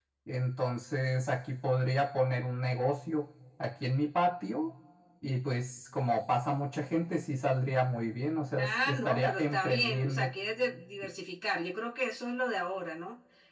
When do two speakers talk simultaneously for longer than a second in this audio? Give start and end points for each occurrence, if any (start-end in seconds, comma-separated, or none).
8.6-10.3